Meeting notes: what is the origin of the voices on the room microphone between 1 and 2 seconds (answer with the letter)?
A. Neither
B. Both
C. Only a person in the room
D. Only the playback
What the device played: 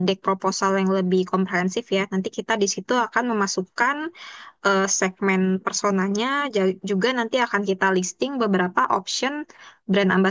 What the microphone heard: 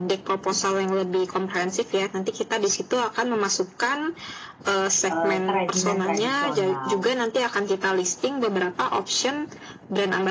D